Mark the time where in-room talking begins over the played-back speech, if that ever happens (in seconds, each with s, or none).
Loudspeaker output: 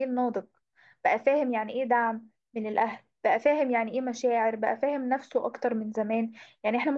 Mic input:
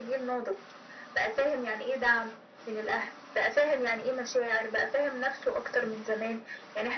none